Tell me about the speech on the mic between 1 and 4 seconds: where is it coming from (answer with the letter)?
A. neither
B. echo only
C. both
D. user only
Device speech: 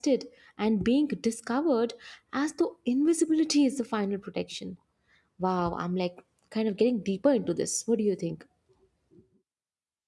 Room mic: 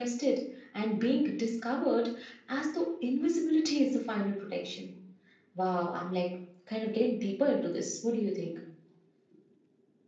B